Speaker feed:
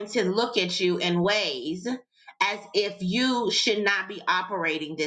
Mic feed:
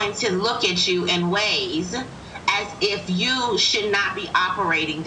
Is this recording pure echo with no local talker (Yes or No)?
Yes